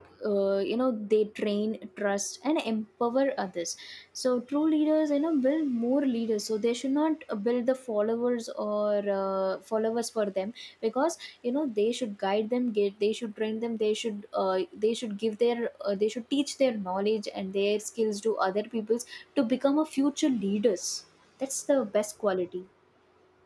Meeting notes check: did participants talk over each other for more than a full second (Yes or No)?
No